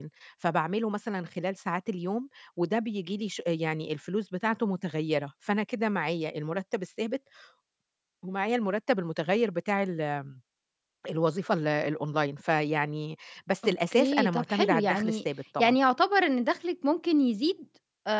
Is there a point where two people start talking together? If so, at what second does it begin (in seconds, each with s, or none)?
13.6 s